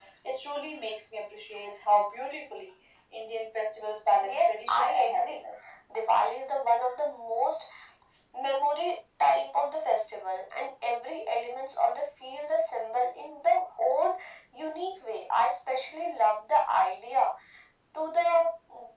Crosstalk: present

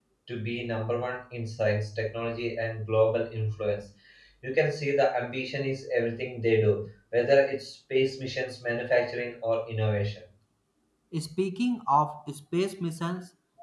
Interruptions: none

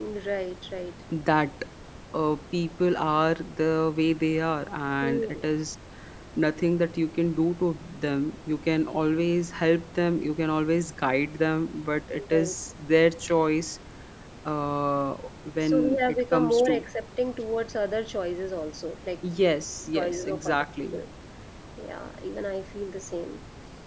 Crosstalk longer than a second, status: present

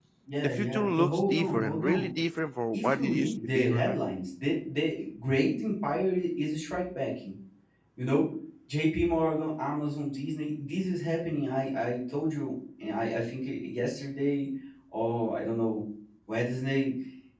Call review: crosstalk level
present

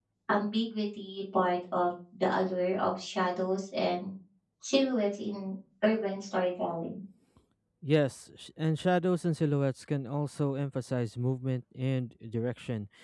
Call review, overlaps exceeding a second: none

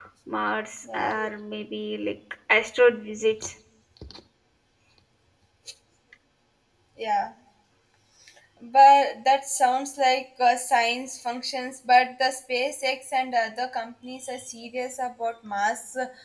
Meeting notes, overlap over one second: none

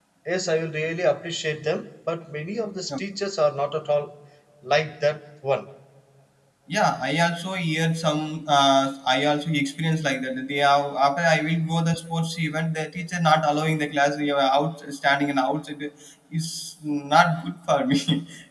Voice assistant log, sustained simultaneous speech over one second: none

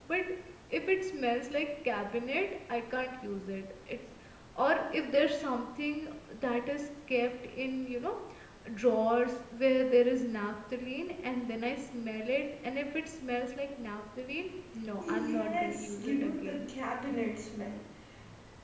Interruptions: present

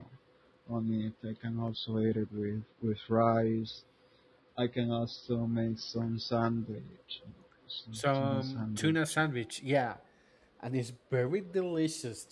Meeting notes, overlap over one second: present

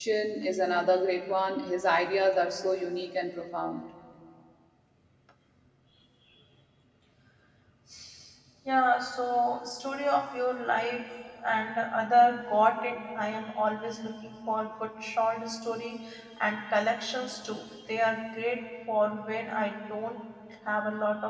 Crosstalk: none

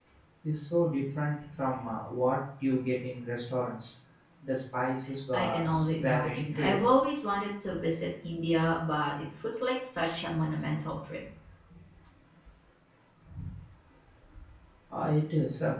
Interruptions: present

